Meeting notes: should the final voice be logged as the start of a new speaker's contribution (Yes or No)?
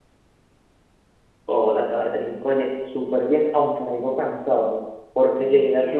No